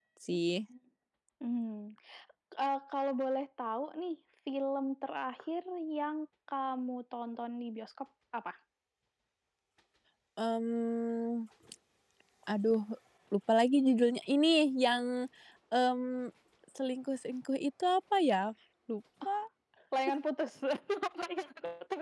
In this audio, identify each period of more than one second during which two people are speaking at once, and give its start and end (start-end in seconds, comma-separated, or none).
none